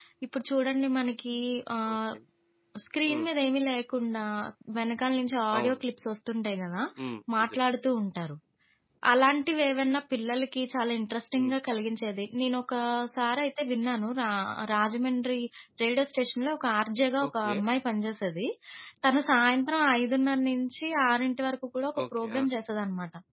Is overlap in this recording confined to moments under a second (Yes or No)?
Yes